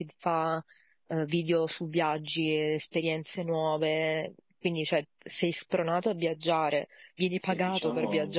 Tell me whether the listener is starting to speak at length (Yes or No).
Yes